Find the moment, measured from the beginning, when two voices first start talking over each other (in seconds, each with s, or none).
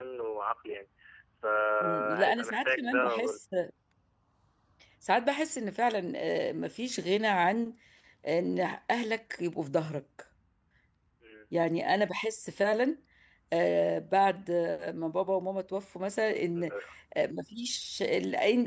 1.8 s